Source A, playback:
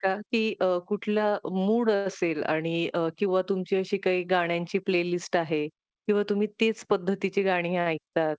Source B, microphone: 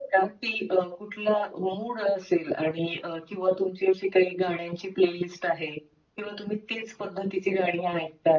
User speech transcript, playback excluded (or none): none